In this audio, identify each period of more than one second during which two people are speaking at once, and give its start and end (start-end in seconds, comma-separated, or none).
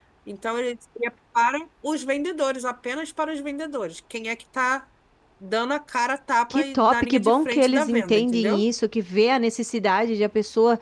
6.5-8.6